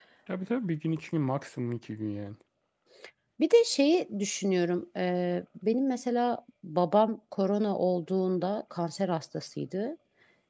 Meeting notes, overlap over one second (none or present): none